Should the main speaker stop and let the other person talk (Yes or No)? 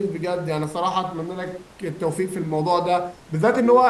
No